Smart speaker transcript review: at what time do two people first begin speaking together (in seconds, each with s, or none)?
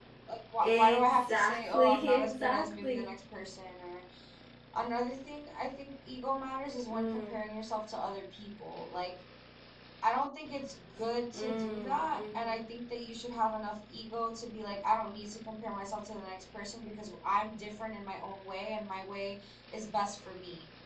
0.6 s